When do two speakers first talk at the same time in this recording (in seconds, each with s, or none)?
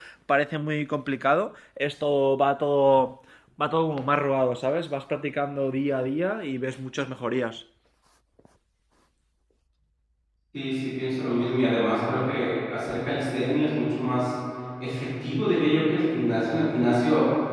none